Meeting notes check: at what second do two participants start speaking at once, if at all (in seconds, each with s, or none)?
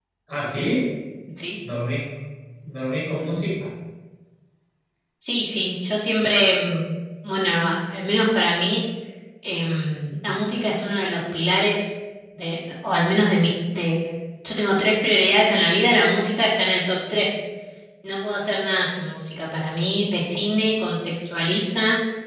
none